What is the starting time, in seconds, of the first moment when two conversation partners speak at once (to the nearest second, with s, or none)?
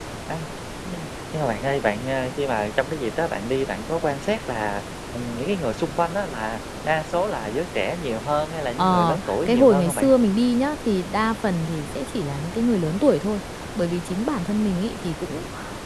9 s